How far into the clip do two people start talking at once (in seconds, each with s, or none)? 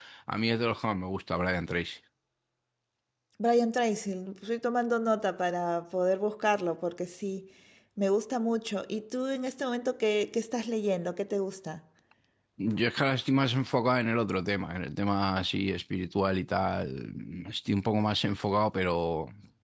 none